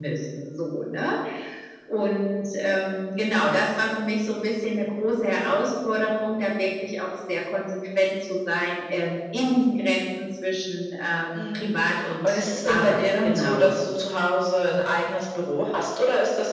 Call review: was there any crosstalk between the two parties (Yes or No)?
Yes